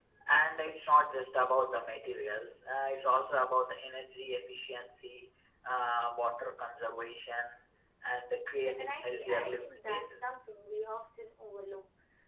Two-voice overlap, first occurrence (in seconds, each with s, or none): 8.6 s